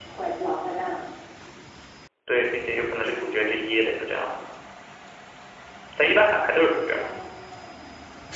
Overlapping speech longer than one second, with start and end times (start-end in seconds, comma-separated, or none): none